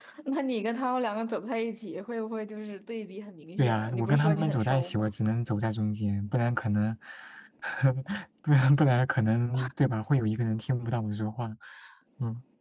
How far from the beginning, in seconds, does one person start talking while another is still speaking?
4 s

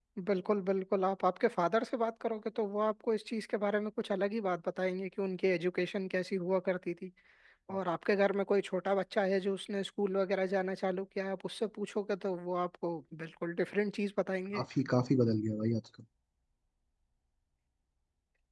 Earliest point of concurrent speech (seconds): none

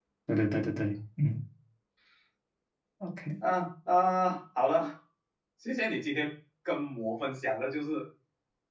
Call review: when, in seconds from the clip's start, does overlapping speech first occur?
none

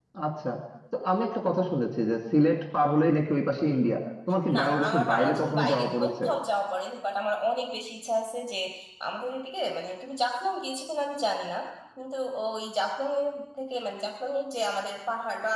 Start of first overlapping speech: 4 s

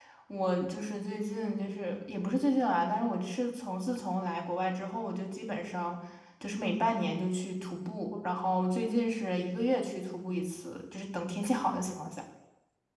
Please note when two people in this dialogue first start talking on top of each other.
none

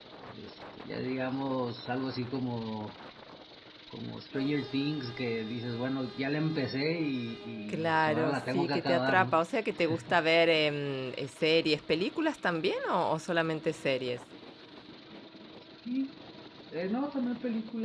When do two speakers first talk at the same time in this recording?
8 s

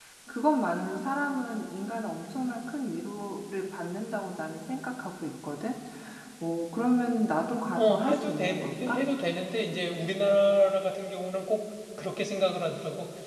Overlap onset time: 8 s

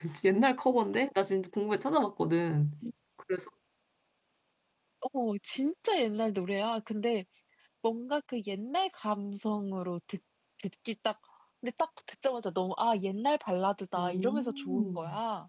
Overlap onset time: 14 s

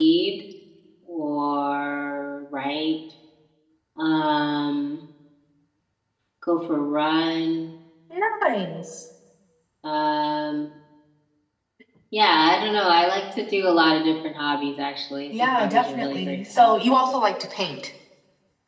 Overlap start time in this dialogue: 15 s

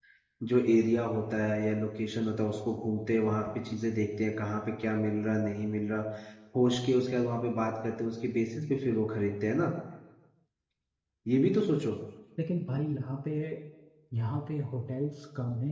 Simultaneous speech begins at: none

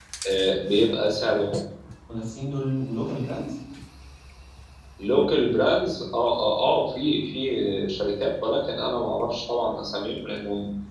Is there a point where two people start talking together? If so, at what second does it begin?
none

